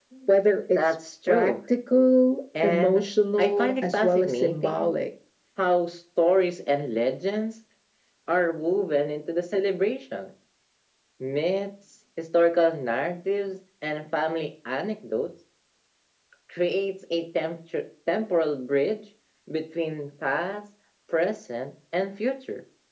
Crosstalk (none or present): present